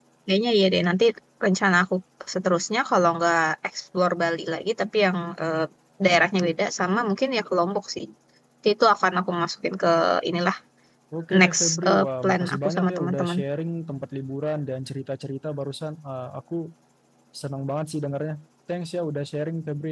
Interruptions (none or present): present